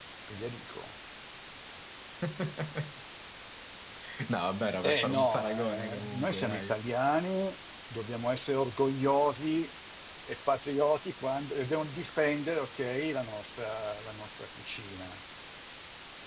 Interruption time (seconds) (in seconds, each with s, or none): 4.8 s